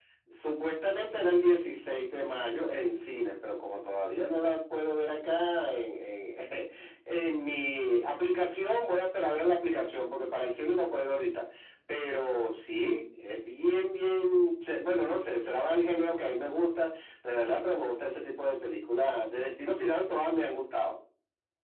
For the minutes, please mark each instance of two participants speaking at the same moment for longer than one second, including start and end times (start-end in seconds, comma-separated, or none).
none